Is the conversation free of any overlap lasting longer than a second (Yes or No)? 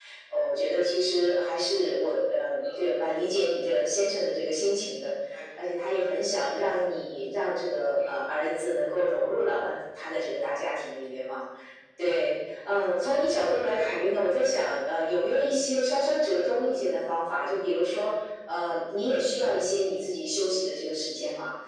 Yes